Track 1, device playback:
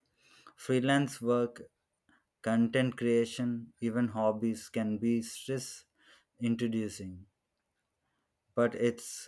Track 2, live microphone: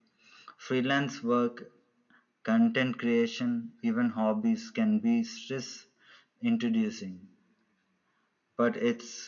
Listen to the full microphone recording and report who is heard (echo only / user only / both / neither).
echo only